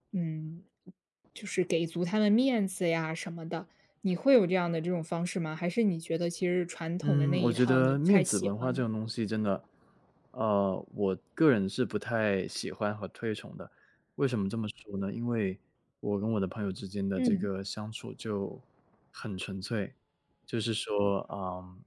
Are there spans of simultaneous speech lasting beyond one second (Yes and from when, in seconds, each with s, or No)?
Yes, from 7.0 s